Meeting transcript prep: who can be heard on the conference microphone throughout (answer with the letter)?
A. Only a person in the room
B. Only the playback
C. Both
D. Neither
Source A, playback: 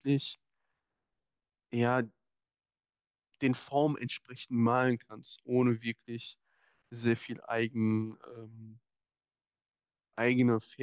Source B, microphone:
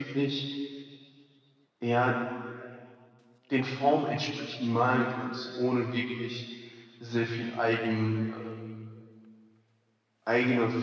B